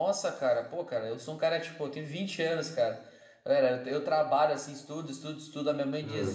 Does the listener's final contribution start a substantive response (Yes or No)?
No